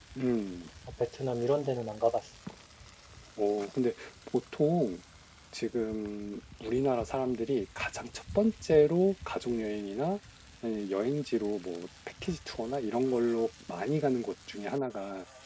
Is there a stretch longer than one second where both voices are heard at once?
No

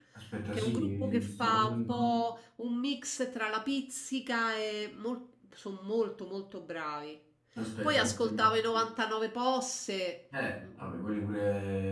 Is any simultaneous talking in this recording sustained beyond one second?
Yes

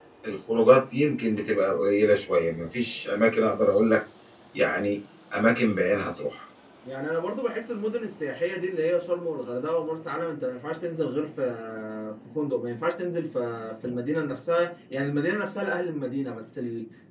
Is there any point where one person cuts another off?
No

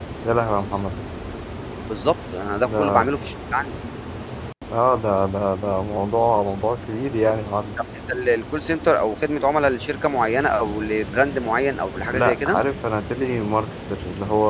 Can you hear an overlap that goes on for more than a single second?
No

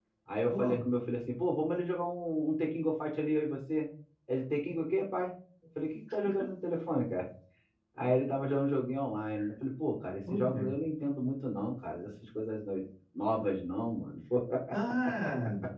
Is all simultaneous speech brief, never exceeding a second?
Yes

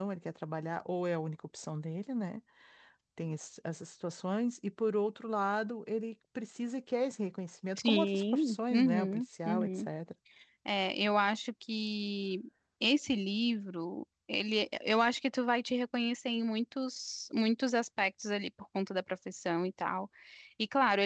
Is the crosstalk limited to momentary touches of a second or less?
No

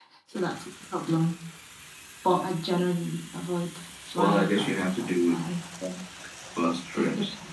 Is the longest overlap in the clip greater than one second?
Yes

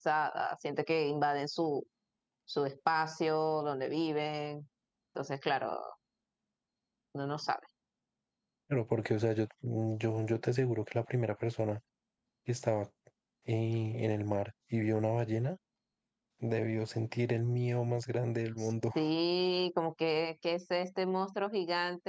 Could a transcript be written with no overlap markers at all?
Yes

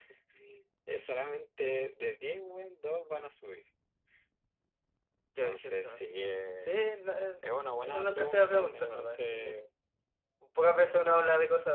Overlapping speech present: Yes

